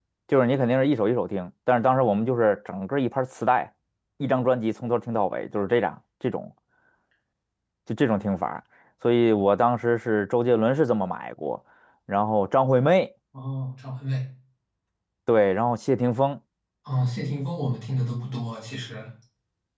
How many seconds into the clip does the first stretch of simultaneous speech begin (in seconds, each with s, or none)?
none